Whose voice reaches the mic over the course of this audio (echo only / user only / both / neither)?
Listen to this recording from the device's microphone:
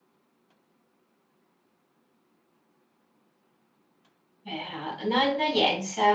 user only